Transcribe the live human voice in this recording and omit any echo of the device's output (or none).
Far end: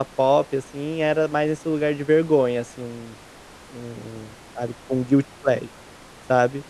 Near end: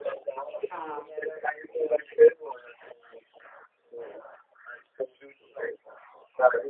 Tá.